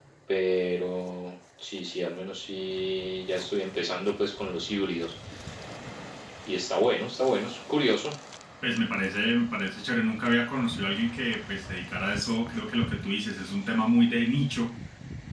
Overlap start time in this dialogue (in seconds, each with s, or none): none